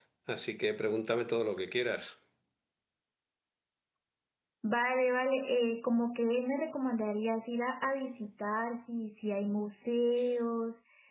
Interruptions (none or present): none